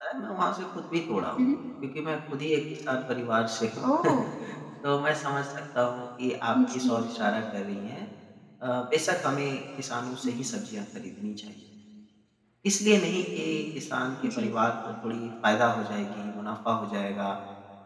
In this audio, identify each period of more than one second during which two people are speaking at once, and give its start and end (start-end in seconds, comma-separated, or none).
none